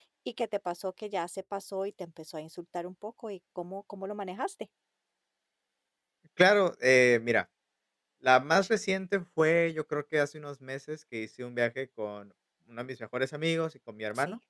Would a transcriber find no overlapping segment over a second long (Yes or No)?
Yes